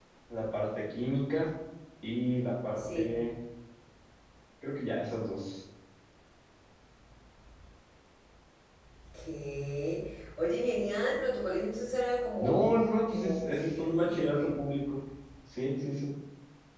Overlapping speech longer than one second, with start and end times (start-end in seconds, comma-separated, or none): 13.1-14.5